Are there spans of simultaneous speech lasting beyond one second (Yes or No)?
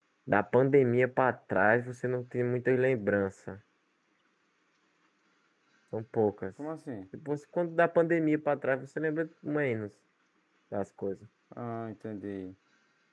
No